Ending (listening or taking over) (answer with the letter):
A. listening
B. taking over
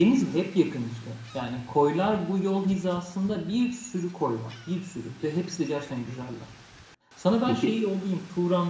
A